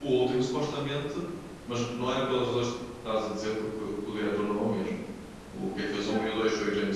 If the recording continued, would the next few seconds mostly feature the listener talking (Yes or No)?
No